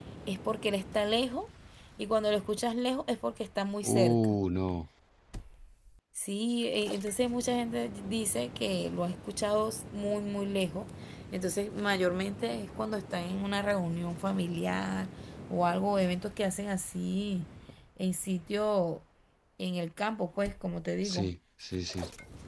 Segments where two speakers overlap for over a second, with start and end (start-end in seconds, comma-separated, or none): none